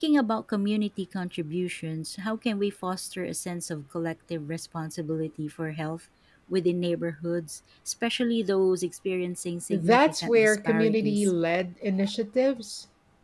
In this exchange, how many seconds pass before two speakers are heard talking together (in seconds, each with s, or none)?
9.7 s